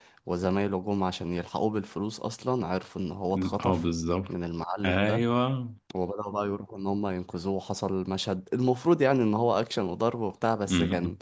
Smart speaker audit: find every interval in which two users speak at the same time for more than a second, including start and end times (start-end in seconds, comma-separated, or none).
none